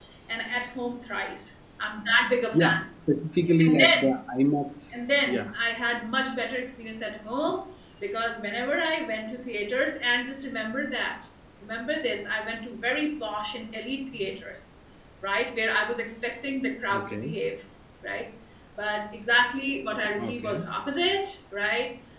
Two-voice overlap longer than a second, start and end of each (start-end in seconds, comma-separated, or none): none